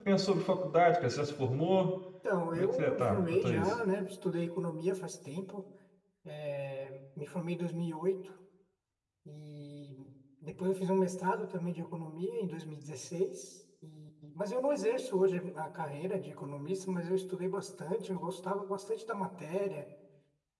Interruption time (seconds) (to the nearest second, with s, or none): 3 s